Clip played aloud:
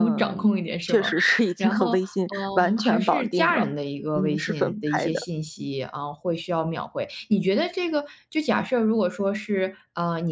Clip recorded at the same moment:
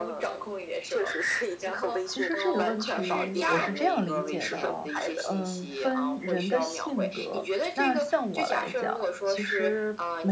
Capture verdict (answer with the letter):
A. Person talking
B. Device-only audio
A